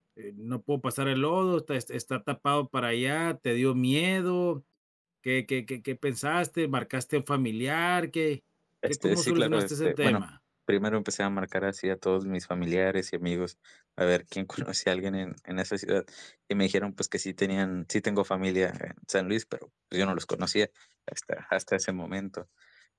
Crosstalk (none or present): present